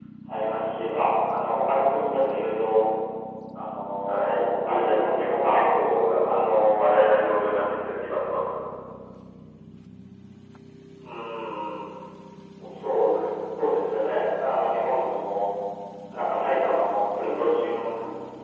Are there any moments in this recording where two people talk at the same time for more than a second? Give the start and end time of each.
4.0-5.6

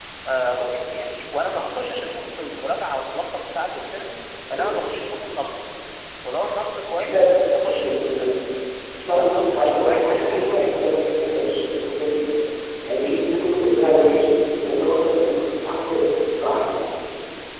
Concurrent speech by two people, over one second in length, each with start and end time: 7.1-8.4, 9.1-10.7

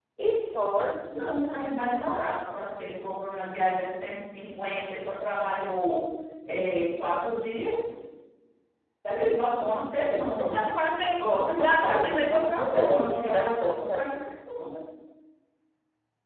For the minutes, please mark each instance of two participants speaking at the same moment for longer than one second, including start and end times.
11.2-14.0

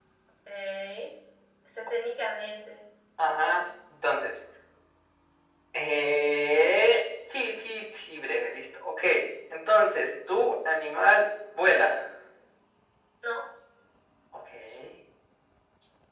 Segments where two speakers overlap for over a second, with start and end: none

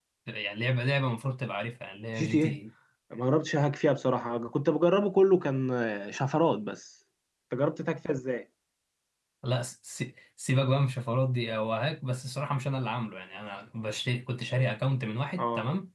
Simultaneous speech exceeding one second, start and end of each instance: none

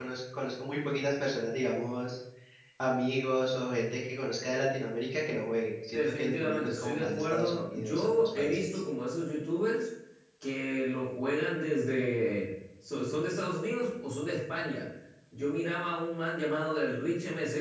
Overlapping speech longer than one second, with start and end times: 5.9-8.8

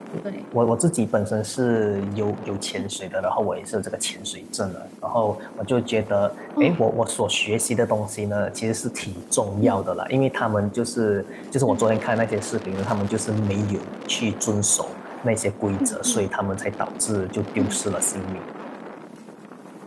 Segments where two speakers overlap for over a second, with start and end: none

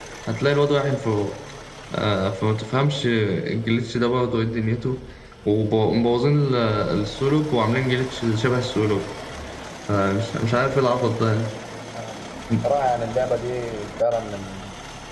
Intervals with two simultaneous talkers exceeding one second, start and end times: none

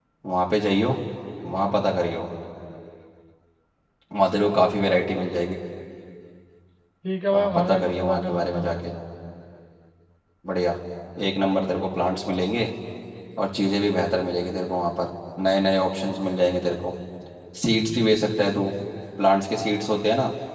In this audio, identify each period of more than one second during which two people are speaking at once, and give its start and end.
7.3-8.6

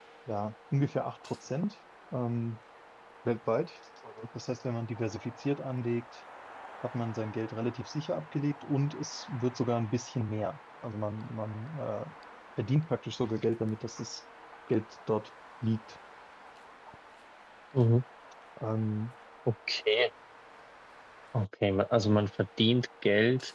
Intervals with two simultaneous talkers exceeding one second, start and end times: none

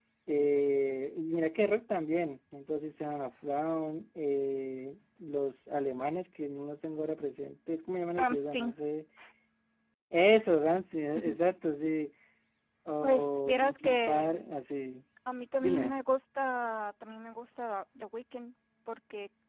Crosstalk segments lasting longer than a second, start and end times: 13.0-14.4

